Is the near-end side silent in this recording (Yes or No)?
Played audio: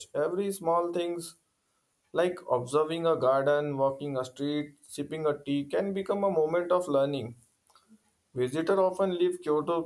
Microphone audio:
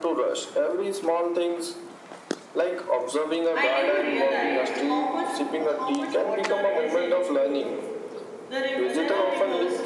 No